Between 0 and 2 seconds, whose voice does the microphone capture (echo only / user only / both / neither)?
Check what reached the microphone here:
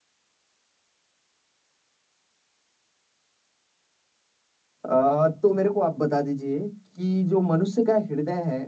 neither